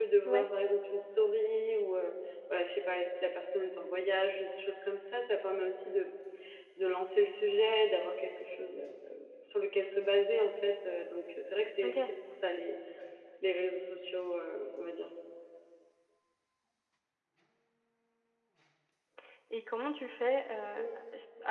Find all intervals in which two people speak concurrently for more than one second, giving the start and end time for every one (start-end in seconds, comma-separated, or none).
none